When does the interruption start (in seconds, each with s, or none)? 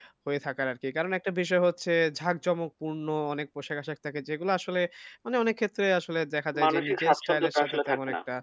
6.5 s